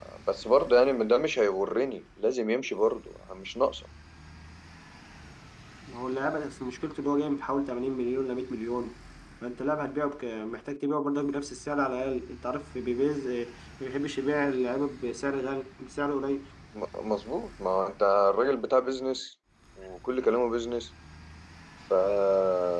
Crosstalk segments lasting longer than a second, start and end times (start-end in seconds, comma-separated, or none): none